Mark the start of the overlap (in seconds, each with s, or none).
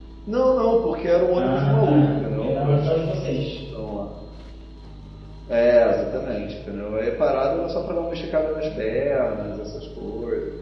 1.4 s